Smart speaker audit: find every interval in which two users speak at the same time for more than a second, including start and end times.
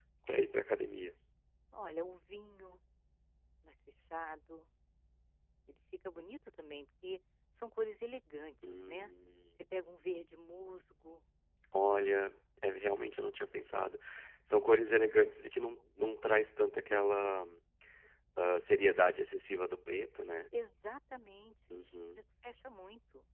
none

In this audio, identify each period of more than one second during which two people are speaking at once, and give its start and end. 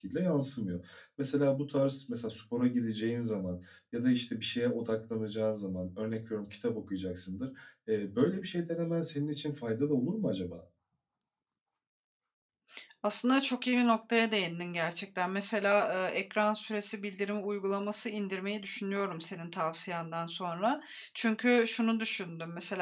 none

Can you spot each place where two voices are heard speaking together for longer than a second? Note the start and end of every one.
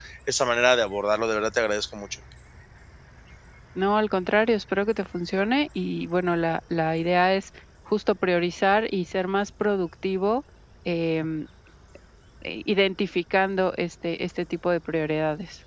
none

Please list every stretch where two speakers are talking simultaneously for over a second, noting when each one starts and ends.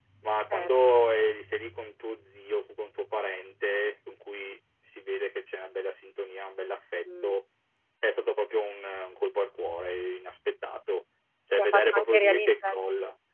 11.6-12.8

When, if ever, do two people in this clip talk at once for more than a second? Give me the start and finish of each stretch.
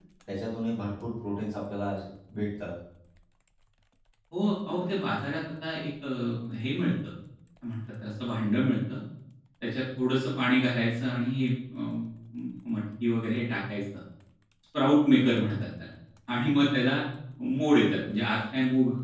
none

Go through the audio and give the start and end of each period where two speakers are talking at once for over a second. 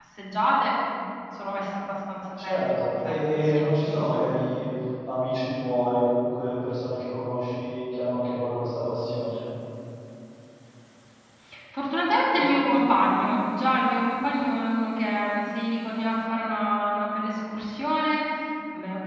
2.4-3.6

